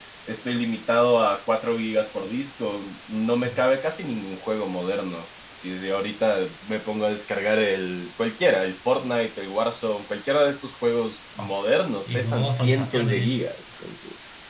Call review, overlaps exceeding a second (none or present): present